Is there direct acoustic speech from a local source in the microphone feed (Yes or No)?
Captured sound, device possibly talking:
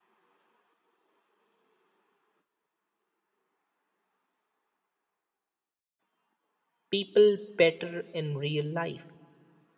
Yes